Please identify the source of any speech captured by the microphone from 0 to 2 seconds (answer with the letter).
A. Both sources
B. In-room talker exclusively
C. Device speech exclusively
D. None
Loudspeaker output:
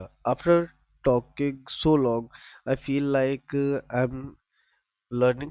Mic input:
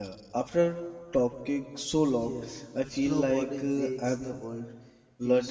C